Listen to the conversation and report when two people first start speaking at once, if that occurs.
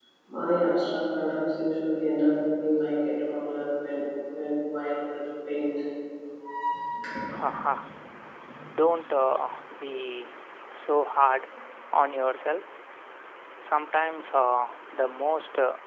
none

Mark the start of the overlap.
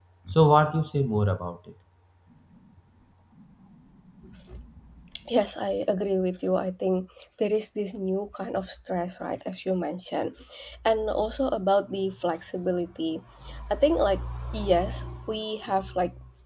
none

